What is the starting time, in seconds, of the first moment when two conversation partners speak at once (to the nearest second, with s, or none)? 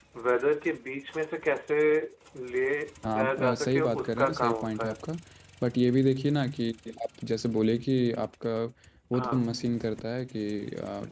3 s